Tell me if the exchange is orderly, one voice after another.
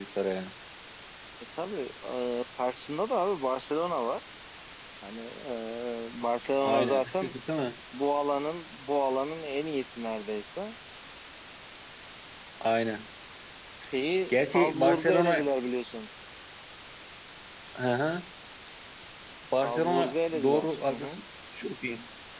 No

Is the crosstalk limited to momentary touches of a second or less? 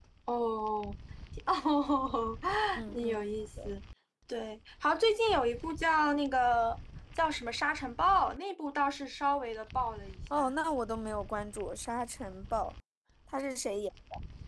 Yes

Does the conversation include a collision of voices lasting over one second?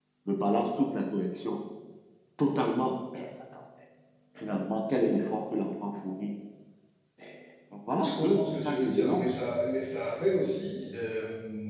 Yes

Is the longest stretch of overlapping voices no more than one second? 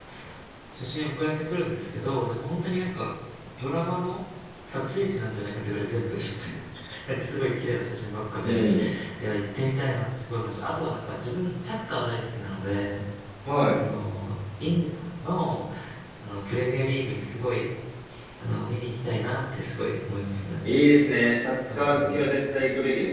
Yes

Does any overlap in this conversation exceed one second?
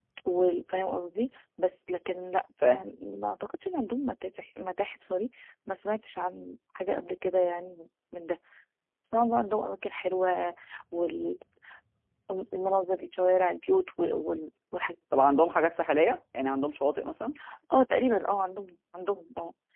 No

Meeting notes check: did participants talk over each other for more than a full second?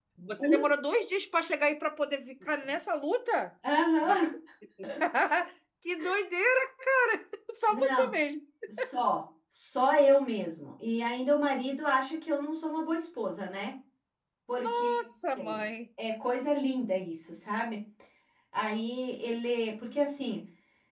No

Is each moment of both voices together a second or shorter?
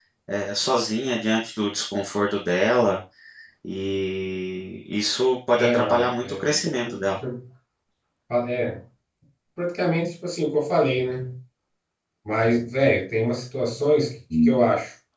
No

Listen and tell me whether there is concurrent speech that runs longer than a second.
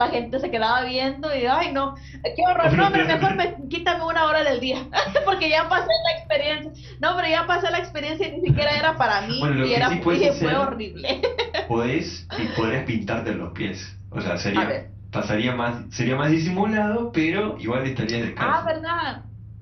Yes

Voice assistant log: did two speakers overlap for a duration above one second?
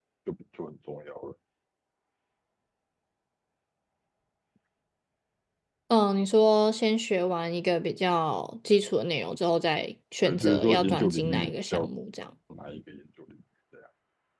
Yes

